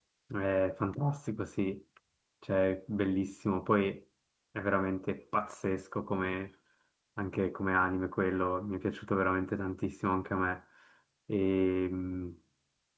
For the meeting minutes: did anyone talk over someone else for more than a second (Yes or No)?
No